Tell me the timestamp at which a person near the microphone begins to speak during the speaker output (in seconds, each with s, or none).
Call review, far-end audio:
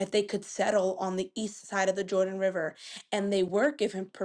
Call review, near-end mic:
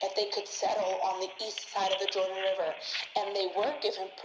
none